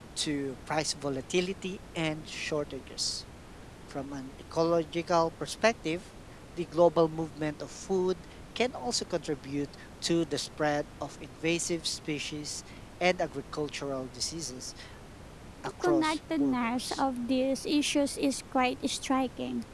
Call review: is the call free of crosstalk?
No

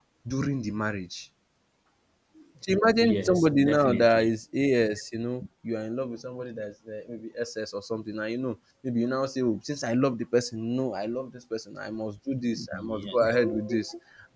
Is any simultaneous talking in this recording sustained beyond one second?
Yes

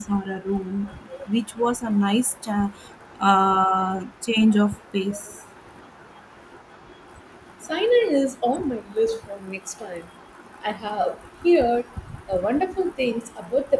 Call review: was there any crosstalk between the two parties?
No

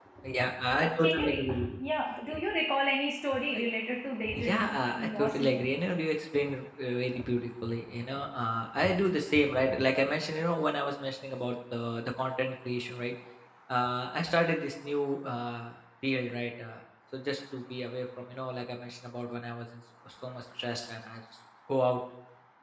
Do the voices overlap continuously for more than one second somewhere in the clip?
Yes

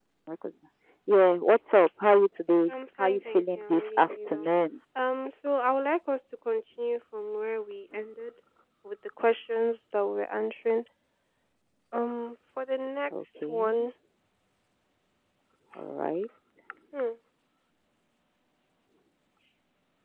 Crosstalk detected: Yes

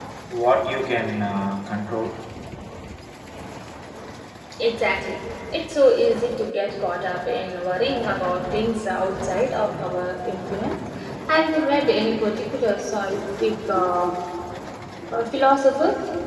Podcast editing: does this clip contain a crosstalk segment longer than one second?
No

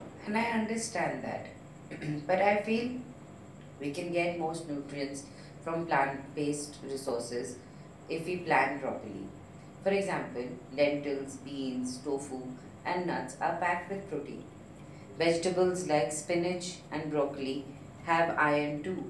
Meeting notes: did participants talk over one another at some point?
No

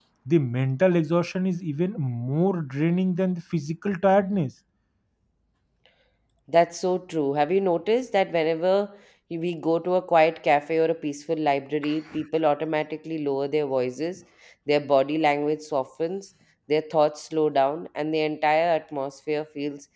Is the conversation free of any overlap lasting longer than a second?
Yes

